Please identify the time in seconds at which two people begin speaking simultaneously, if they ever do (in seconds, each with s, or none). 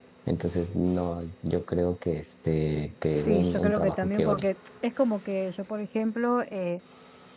3.3 s